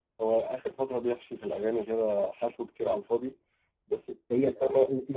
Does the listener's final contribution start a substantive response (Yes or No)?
Yes